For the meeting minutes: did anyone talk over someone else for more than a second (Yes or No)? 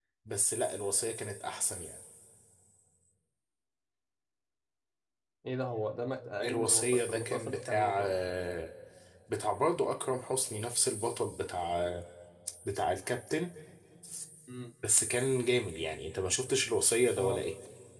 Yes